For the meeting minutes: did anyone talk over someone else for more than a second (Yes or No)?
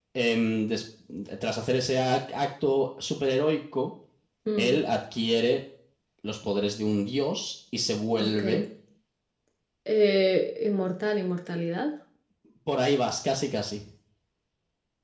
No